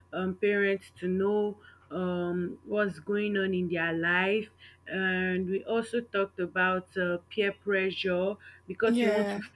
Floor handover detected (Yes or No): No